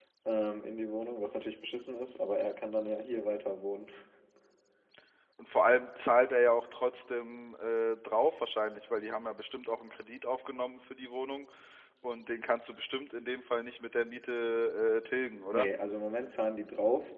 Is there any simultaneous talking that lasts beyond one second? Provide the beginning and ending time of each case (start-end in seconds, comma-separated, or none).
none